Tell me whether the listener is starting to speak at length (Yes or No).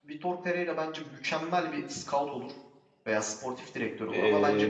Yes